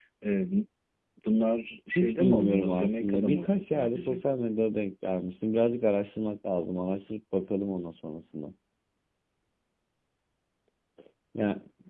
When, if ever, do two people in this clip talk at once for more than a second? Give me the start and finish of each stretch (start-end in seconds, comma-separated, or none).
2.0-4.2